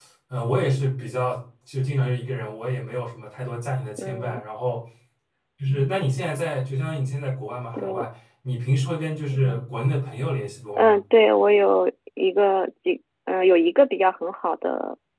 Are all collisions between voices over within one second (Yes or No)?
Yes